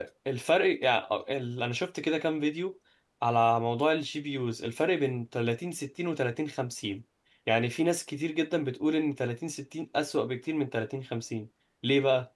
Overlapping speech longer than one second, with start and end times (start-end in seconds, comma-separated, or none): none